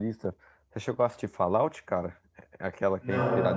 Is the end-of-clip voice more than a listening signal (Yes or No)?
No